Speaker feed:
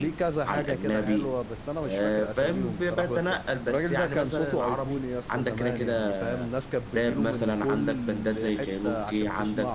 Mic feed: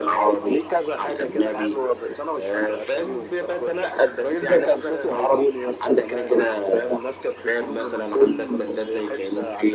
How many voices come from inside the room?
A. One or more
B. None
B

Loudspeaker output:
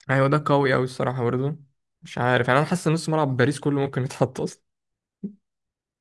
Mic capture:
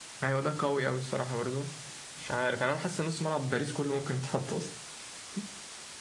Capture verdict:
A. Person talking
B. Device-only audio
B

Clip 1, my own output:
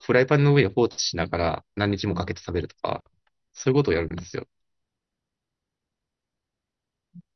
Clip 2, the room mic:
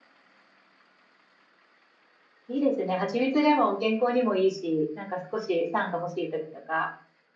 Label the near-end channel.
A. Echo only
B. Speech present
B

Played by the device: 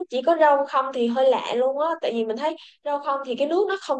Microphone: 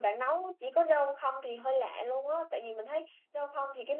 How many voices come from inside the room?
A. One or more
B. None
B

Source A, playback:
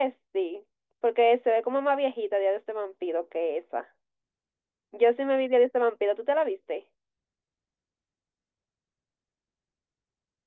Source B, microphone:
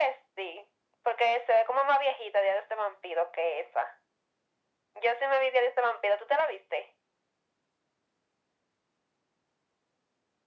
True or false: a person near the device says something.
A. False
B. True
A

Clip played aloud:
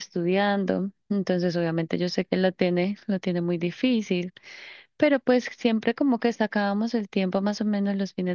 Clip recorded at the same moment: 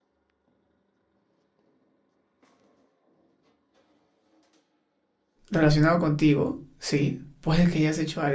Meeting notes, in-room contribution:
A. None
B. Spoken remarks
B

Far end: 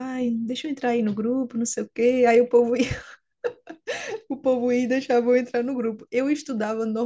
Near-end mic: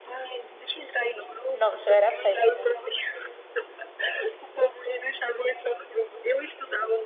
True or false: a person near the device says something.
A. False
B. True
B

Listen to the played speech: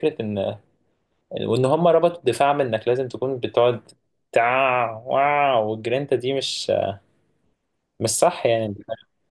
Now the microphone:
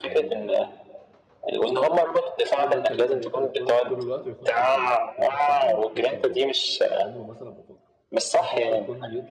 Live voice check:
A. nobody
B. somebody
B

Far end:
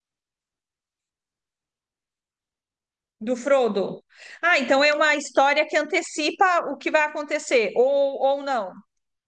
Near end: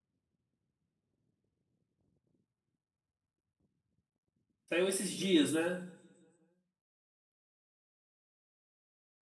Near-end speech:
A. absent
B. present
B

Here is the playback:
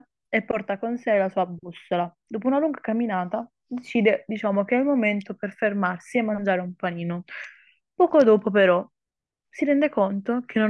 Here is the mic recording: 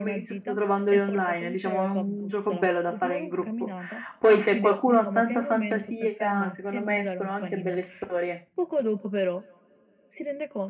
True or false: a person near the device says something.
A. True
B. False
A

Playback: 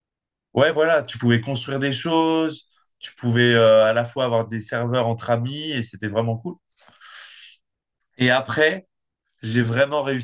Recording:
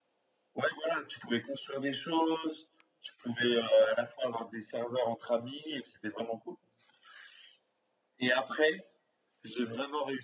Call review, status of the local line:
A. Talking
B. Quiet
B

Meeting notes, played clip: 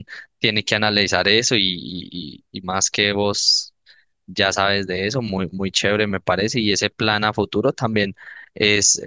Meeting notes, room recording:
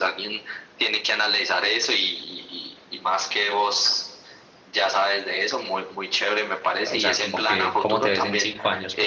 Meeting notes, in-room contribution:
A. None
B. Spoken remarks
B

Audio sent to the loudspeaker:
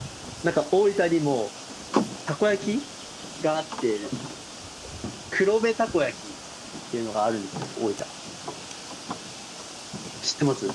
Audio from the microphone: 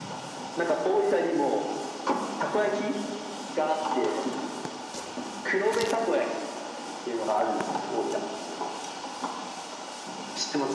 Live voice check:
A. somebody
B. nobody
B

